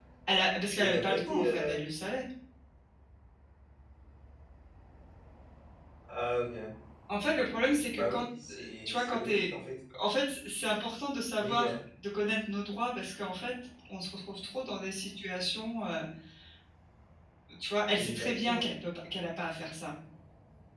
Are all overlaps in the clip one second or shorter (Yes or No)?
No